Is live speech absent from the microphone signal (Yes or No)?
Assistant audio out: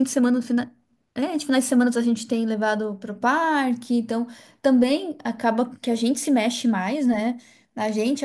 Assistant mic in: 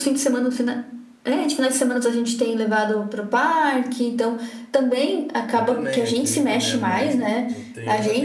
No